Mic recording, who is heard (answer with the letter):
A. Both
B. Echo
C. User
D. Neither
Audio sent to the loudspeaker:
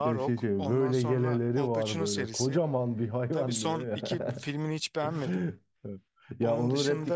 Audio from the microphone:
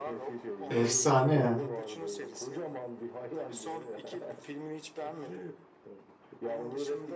A